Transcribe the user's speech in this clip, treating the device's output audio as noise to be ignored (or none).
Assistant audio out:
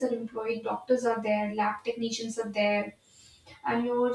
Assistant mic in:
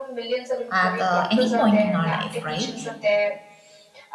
at uh, any point in our life, right?